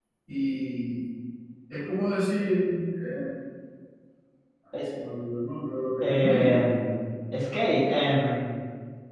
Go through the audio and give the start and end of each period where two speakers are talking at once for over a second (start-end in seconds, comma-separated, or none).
none